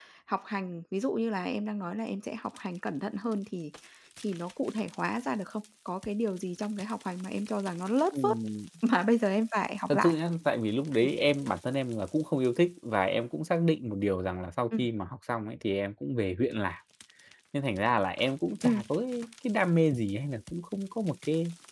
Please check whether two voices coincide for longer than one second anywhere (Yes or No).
No